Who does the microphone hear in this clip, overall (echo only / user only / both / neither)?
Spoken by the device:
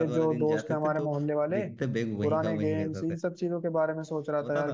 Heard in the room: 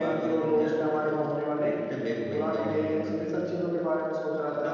echo only